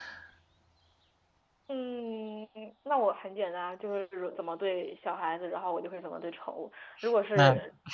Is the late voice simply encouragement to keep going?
Yes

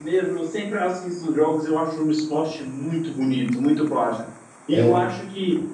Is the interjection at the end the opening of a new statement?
No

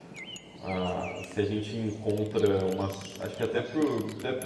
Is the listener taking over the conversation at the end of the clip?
No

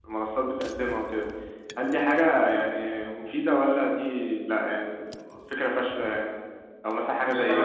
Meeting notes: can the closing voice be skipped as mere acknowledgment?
Yes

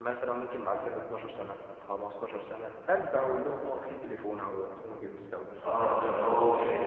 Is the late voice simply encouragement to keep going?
No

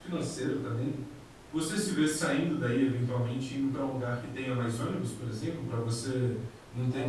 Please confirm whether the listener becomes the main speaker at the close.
Yes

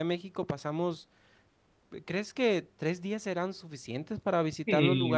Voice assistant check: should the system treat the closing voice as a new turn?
Yes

